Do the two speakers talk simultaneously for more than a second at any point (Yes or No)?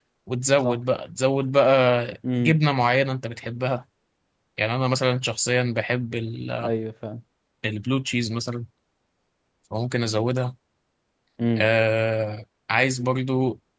No